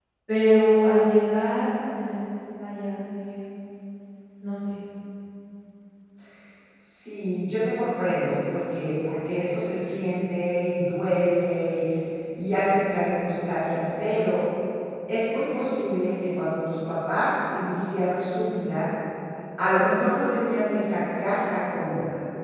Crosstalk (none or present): none